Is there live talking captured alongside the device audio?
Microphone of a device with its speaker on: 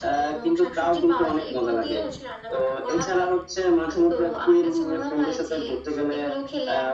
No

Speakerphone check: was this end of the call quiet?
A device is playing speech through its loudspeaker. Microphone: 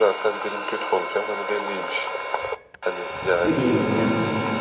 No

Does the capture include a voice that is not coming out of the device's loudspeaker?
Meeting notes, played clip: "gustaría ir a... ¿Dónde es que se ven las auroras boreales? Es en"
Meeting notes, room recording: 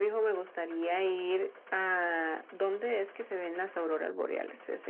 No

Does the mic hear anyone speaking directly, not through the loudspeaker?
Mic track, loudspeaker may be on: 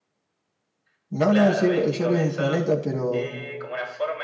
Yes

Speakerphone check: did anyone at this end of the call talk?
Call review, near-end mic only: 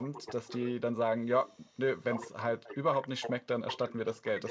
Yes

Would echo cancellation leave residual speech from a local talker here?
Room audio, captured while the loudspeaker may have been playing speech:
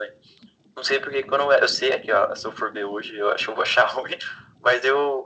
No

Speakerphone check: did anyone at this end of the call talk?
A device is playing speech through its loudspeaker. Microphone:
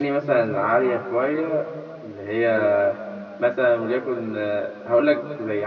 Yes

